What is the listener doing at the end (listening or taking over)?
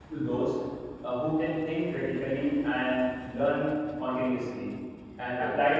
listening